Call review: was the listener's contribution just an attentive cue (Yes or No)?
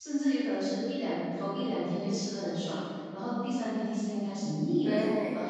No